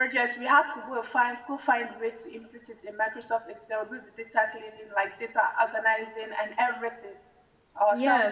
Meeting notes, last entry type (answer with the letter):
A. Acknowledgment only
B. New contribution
B